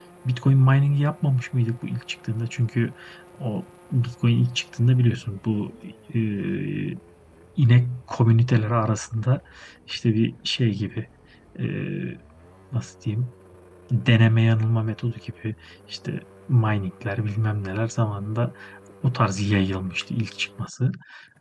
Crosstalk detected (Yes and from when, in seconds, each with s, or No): No